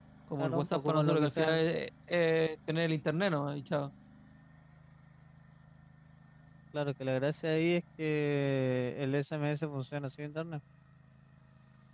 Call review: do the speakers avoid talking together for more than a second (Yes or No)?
No